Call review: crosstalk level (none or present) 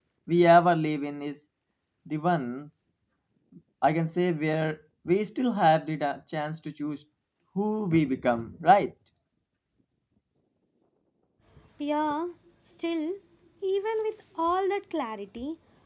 none